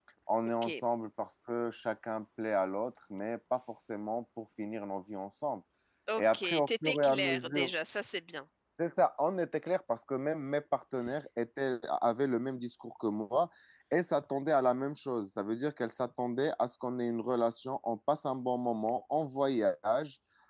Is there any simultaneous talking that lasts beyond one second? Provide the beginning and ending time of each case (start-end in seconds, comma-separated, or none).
6.2-7.7